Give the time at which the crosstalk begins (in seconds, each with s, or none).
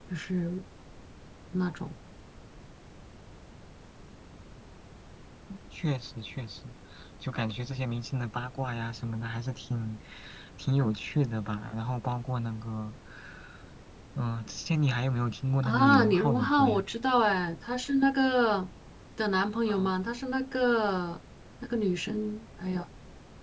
15.6 s